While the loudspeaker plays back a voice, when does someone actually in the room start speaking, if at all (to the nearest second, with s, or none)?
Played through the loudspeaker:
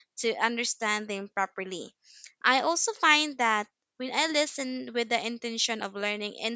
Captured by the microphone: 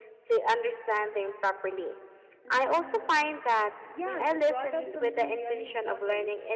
2 s